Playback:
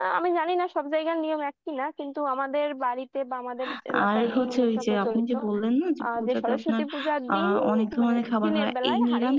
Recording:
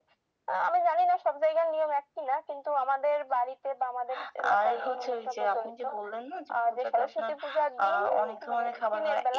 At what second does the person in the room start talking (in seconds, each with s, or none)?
none